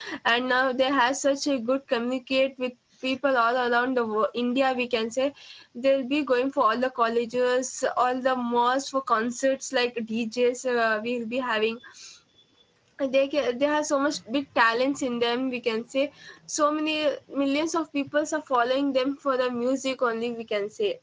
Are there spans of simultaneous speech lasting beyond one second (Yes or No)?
No